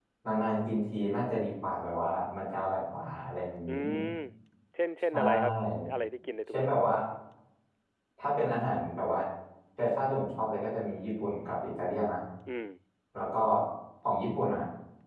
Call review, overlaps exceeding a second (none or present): none